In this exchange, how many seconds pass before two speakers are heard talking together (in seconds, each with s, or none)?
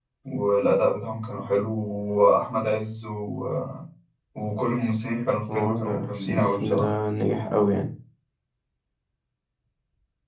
5.5 s